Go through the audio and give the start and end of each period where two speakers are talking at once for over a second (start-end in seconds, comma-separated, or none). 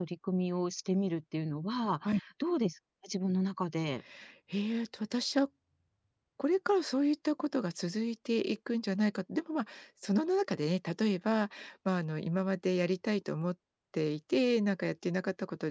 none